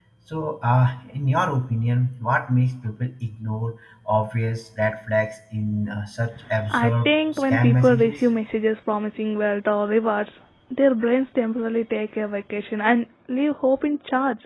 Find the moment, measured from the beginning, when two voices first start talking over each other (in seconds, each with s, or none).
6.5 s